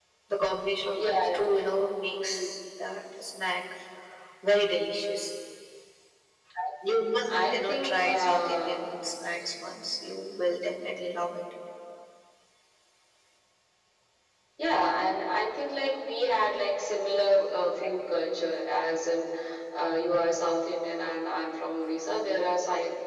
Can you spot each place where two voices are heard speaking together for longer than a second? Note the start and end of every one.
7.5-8.8

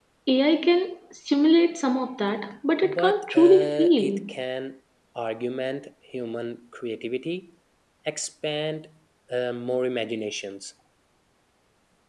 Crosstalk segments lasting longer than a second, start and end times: 2.8-4.2

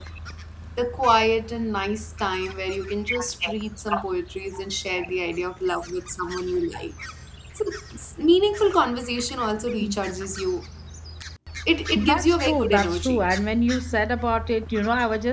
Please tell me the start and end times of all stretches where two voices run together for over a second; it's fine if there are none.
12.0-13.2

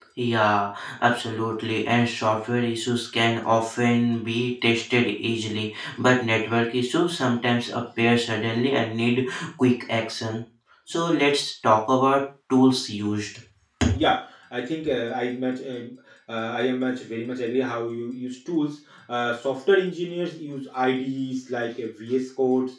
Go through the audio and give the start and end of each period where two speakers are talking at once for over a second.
none

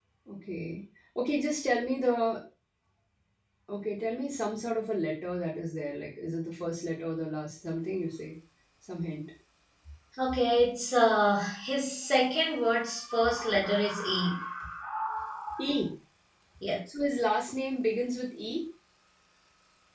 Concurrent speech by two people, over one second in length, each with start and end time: none

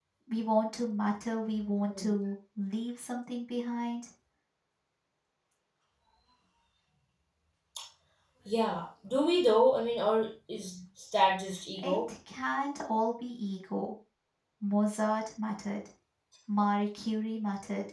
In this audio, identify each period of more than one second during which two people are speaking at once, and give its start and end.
none

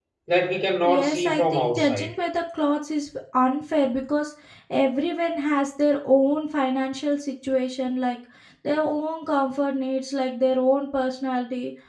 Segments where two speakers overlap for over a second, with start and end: 0.8-2.1

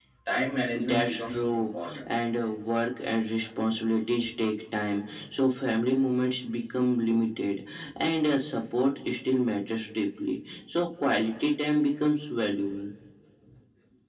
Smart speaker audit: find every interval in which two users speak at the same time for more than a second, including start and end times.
0.7-2.1

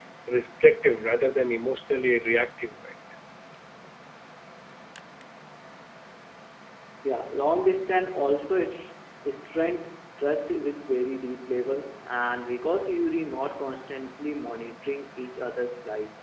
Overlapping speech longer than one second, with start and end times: none

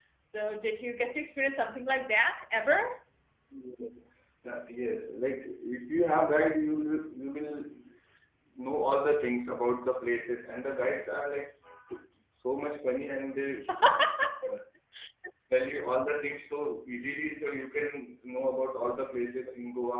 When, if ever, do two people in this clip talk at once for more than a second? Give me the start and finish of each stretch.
none

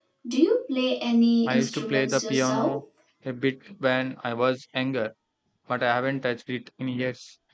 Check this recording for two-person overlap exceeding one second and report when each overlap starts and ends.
1.5-2.8

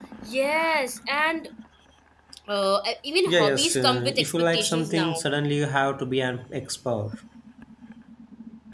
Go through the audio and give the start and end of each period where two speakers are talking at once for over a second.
3.3-5.2

